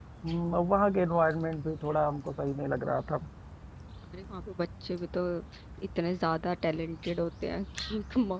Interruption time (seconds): none

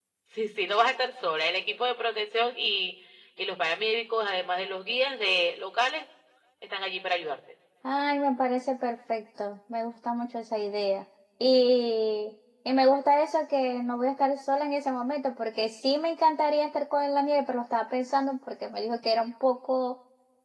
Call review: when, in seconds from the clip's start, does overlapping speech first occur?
none

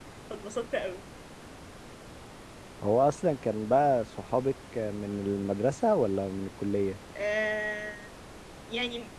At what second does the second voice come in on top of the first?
none

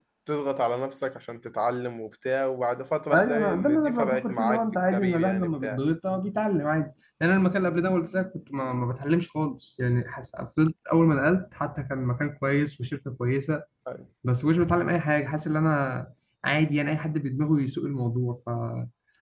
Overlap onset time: 3.1 s

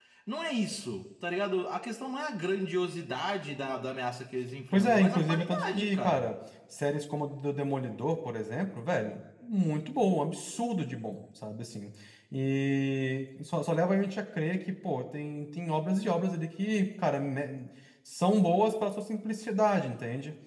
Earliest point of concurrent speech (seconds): 4.7 s

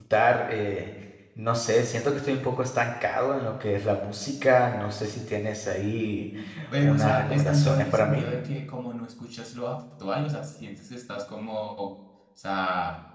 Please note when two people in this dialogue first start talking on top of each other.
6.8 s

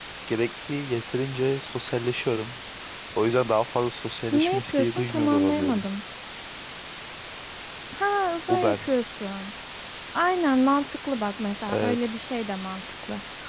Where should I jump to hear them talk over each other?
4.3 s

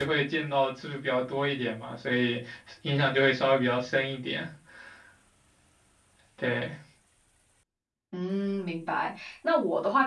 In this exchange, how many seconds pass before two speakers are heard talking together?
none

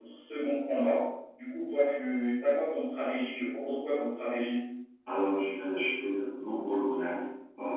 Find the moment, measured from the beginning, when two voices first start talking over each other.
none

